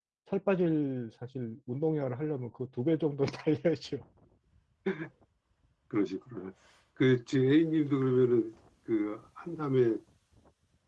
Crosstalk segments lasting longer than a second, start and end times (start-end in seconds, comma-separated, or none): none